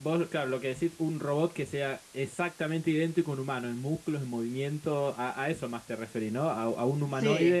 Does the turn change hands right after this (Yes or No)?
No